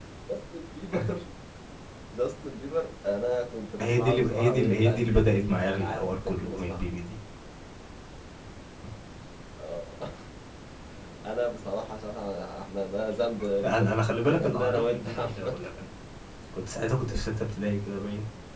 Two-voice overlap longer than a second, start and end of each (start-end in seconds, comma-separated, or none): 3.8-6.8, 13.6-15.5